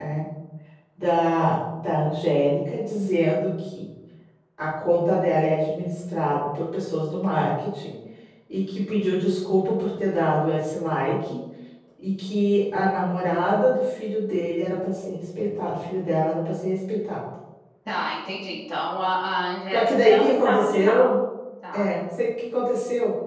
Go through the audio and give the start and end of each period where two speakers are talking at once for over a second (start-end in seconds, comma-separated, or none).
19.7-21.2